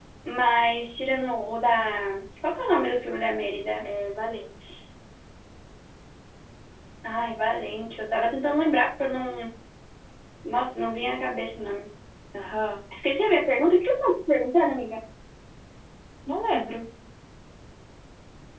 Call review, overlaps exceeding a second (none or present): none